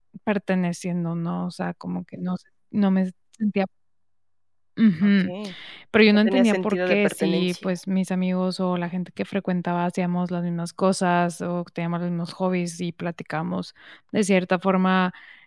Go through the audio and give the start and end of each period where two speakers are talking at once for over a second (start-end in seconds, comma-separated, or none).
6.2-7.7